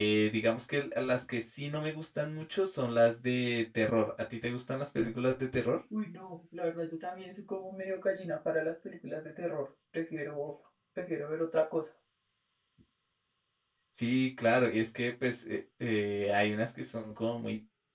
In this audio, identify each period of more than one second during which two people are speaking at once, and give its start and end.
none

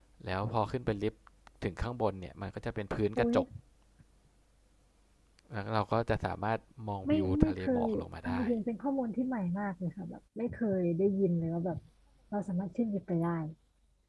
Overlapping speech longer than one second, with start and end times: 7.1-8.4

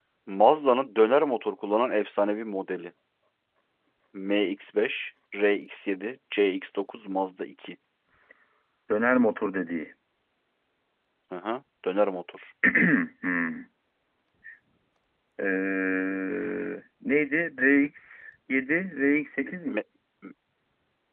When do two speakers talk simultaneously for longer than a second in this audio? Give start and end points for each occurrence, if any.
none

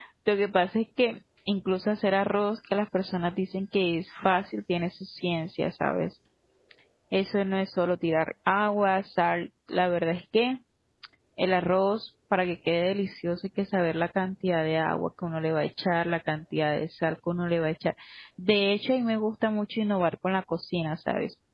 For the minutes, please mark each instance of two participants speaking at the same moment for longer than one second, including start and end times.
none

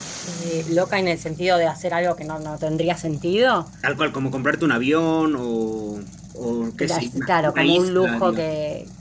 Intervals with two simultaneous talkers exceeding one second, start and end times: 6.8-8.4

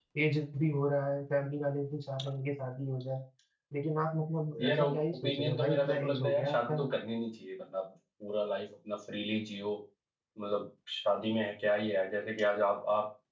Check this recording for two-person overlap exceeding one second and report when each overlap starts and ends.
4.6-6.8

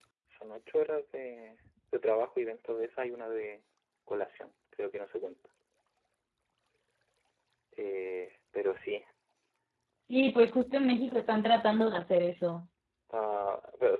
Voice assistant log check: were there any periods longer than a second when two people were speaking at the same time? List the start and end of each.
none

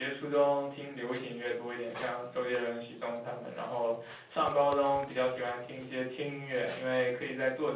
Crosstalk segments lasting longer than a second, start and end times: none

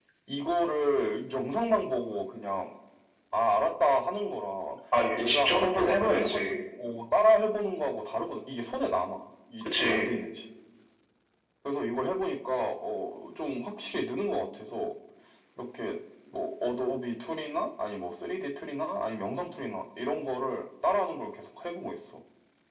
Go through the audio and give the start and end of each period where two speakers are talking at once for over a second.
5.2-6.5

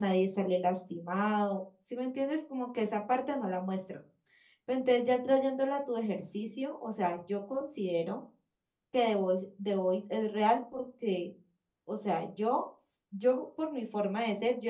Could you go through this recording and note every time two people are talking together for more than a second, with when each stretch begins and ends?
none

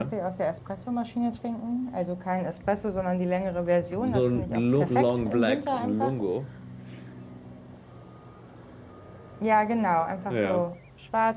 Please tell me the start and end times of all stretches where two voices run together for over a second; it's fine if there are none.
3.8-6.2

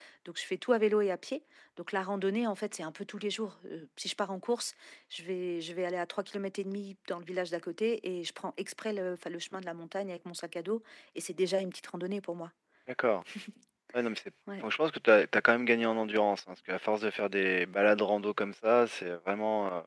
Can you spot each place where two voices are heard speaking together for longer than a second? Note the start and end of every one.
none

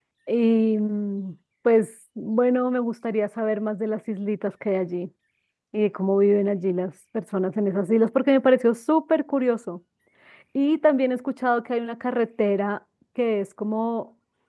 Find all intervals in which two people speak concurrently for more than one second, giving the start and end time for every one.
none

